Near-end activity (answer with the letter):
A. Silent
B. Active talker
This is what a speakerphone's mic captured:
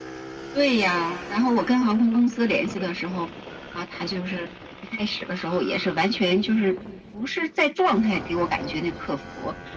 A